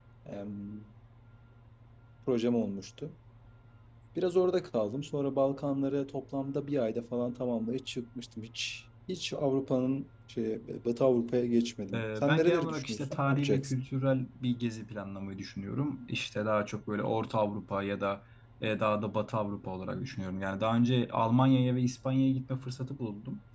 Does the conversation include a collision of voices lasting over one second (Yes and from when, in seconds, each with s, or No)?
Yes, from 11.9 s